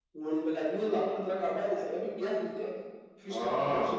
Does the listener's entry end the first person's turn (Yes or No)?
Yes